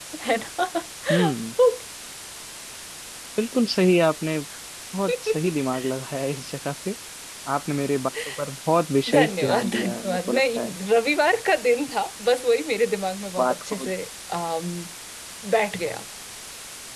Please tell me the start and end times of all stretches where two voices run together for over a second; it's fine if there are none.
9.1-10.8

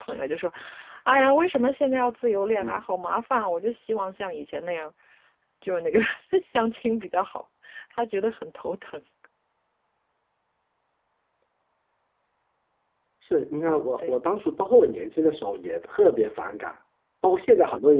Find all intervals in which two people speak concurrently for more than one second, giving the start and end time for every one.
none

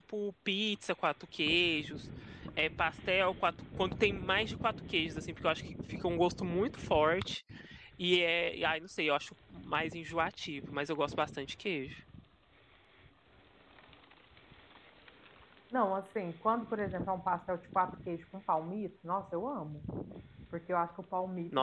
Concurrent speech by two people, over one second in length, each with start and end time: none

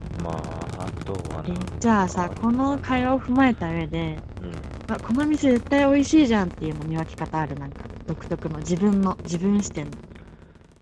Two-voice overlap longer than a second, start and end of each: 1.5-3.2

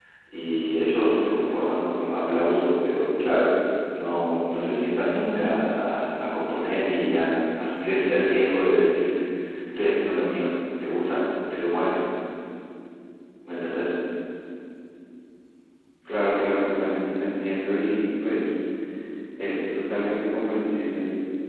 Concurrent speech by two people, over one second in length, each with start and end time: none

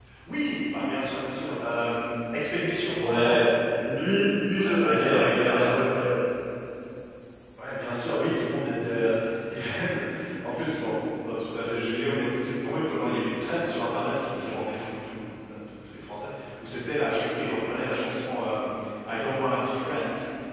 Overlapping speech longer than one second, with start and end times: 4.6-6.0

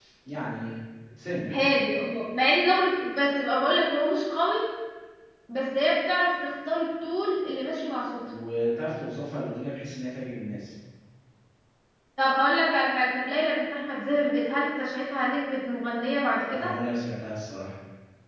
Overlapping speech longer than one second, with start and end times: none

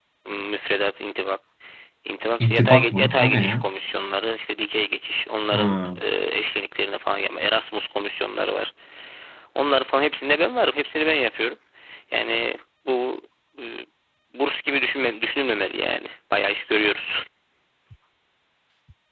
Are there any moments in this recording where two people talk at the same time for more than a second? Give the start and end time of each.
2.4-3.6

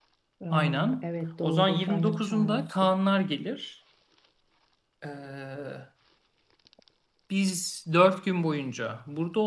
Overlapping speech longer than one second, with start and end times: 1.4-3.0

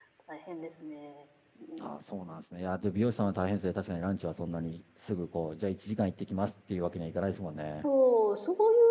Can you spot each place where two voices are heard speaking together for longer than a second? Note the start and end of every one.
none

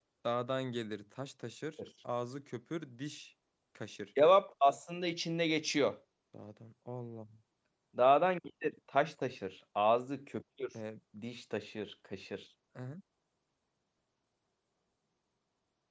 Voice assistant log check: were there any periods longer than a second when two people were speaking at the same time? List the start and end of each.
none

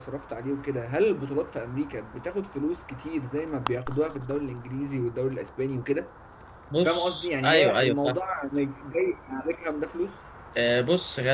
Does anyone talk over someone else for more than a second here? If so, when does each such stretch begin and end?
6.8-8.2

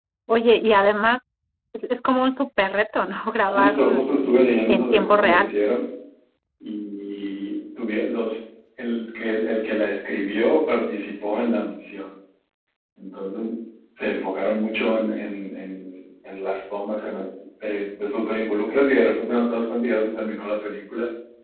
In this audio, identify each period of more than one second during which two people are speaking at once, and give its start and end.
3.4-5.5

